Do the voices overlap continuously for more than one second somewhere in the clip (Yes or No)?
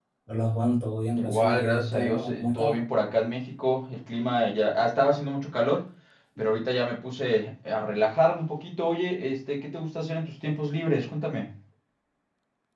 Yes